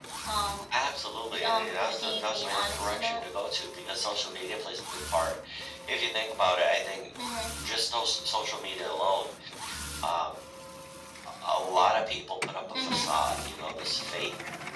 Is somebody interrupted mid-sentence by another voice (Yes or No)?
Yes